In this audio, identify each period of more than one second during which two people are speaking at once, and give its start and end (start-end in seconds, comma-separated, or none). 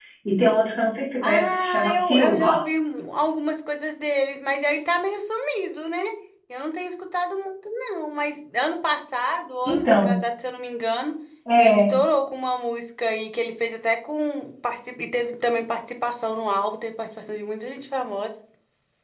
1.2-2.6